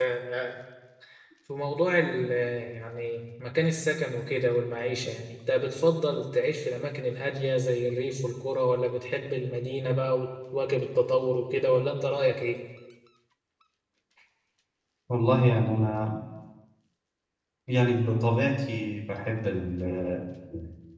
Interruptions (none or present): none